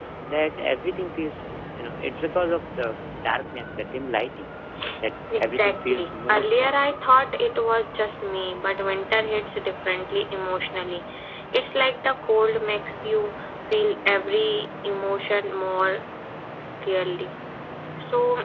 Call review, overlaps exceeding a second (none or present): present